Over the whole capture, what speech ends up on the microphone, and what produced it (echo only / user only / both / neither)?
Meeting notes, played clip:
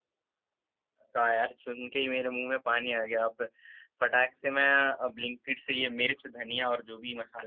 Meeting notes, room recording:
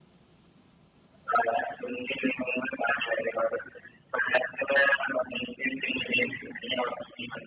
echo only